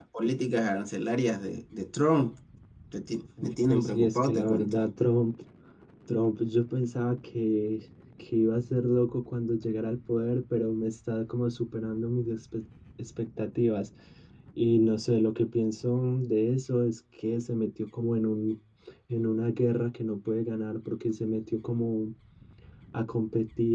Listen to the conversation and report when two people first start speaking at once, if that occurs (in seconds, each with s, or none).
3.4 s